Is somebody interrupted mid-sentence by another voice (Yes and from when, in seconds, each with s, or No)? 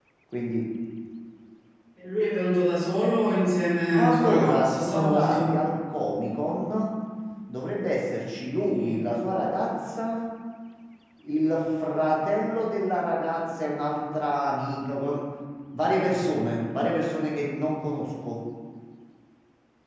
Yes, from 3.9 s